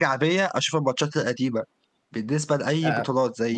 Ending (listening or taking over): listening